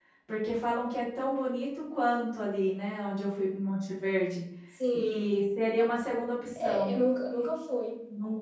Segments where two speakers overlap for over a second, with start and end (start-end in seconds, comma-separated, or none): none